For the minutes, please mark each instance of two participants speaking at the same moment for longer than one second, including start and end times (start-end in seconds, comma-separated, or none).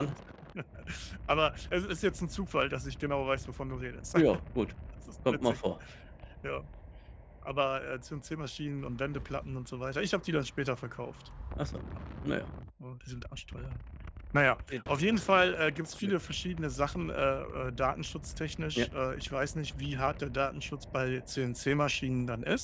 none